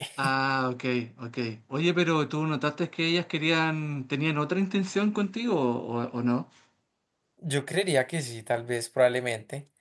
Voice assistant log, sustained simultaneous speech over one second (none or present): none